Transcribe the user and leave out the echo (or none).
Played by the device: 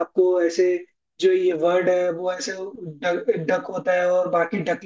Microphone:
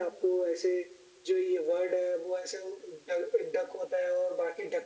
none